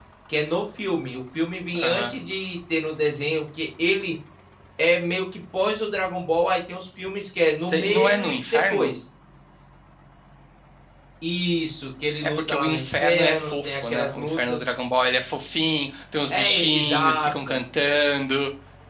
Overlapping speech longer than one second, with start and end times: 7.6-8.9, 12.2-14.6, 16.3-17.6

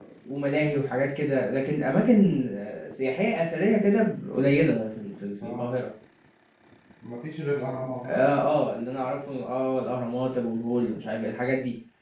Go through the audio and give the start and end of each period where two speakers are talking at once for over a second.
none

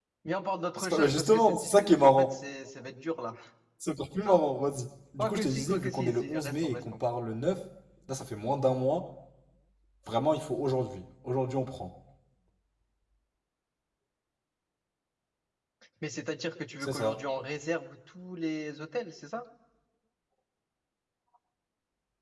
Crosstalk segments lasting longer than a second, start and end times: 0.8-2.4, 5.2-7.0

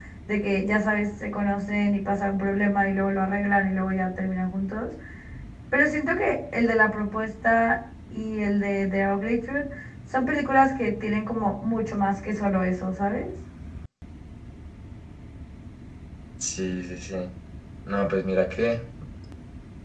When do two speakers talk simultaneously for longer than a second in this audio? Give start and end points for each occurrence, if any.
none

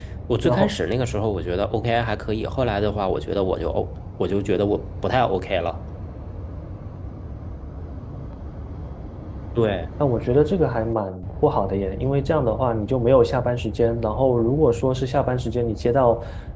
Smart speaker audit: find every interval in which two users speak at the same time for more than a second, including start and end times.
none

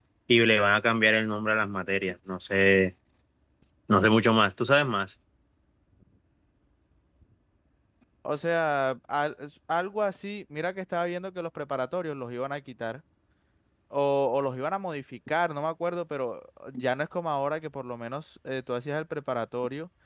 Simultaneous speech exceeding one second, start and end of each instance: none

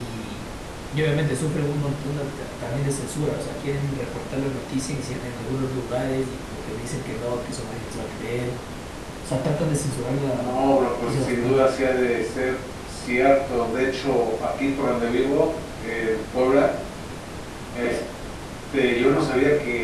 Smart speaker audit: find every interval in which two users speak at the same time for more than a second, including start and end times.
10.3-11.6

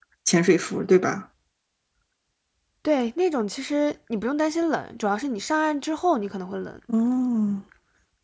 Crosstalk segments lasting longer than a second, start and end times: none

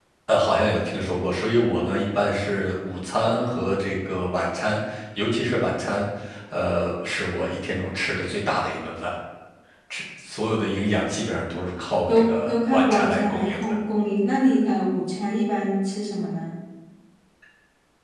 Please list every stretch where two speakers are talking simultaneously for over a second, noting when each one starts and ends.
12.1-13.8

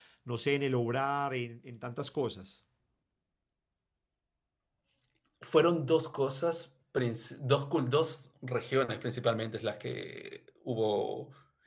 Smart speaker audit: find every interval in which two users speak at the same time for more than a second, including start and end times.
none

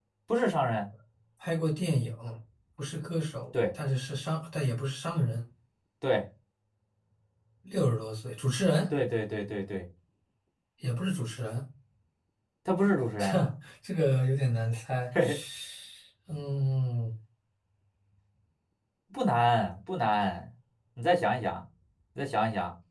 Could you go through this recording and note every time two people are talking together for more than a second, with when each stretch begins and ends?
none

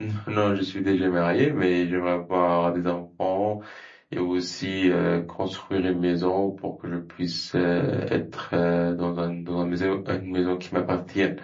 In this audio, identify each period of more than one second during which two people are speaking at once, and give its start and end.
none

